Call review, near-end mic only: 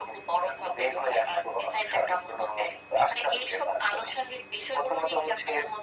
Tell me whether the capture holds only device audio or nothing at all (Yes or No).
Yes